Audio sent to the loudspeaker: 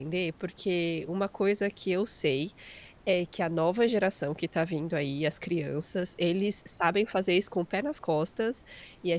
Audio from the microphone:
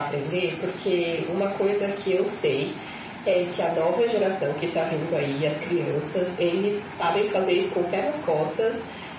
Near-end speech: none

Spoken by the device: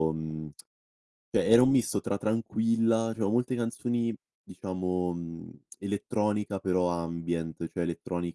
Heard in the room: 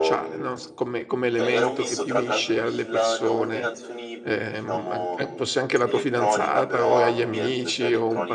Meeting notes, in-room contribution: present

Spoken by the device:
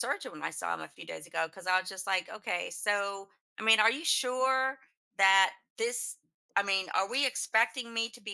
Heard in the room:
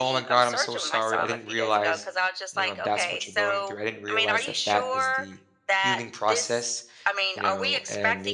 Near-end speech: present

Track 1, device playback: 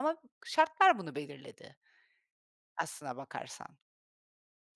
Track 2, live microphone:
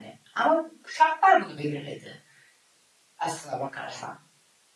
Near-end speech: none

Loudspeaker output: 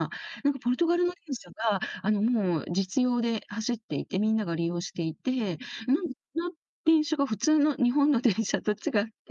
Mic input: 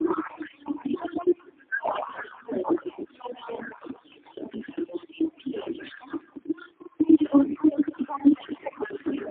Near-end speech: none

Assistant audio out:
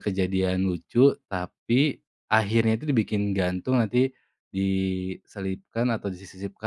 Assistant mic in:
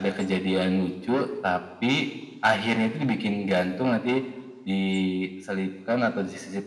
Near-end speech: none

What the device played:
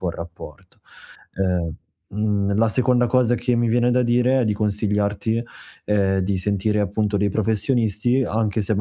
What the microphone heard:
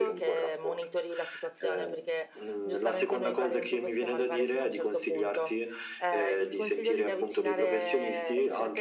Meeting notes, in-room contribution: present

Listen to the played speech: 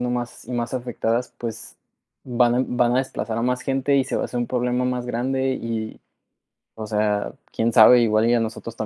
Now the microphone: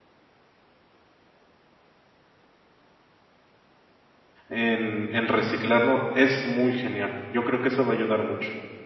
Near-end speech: present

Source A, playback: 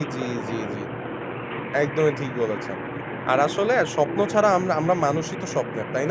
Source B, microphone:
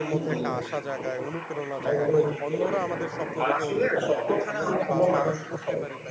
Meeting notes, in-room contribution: present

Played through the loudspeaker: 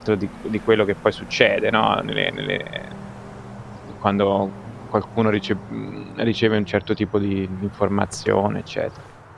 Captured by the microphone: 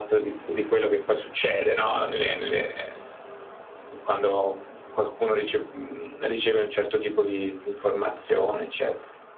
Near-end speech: none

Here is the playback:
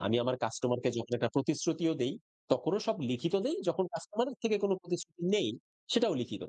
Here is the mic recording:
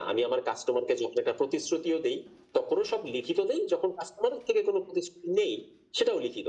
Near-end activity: none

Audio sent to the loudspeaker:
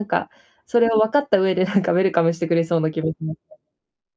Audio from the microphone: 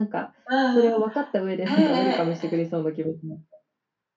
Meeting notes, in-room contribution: present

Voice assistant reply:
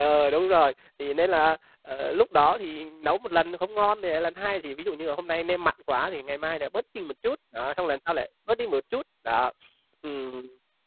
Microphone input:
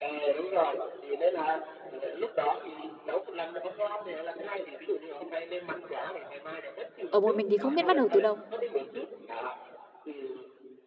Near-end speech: present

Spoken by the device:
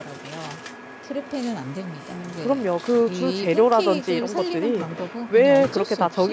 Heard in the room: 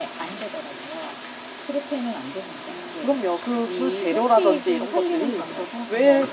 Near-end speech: none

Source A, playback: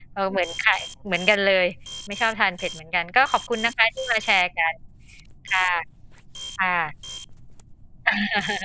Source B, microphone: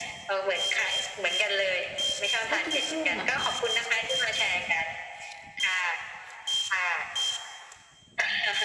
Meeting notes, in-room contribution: present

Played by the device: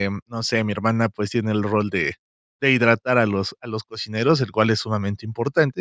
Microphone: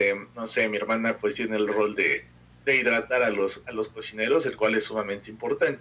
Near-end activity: none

